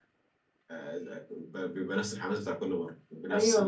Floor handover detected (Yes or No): Yes